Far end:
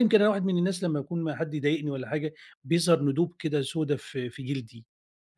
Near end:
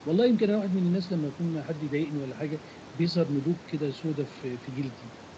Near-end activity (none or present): none